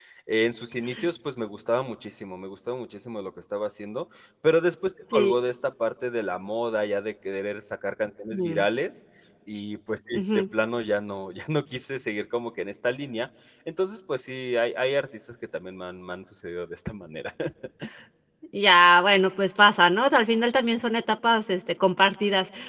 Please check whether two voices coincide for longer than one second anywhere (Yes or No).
No